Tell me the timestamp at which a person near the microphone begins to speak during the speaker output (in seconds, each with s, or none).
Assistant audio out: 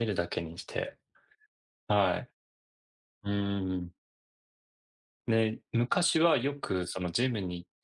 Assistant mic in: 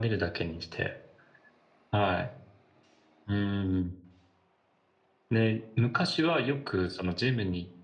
none